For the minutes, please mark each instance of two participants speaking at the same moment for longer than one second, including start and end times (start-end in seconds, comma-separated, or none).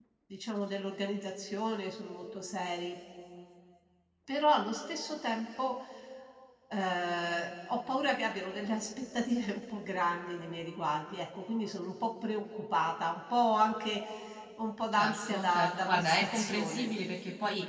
14.9-16.9